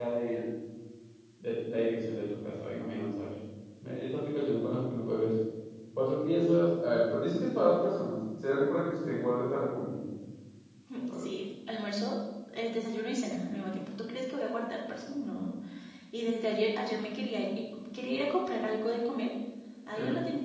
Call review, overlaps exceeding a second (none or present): none